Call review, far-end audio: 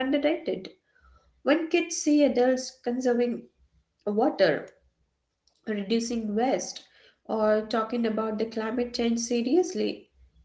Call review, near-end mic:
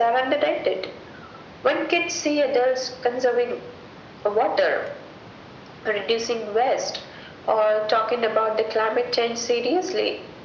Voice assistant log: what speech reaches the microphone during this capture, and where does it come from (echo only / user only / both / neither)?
echo only